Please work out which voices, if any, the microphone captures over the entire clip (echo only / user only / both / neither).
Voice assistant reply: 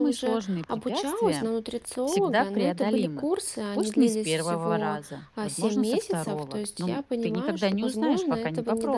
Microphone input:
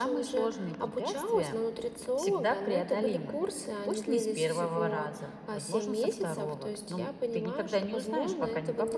echo only